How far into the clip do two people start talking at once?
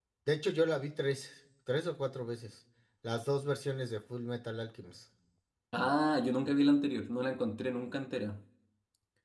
none

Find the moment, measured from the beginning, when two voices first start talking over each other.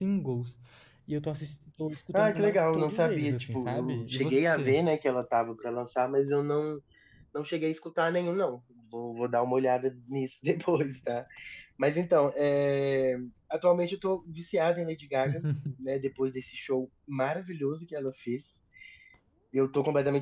2.1 s

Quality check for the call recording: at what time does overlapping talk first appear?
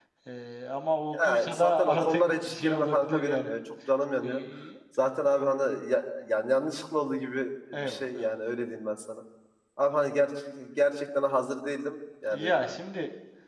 1.1 s

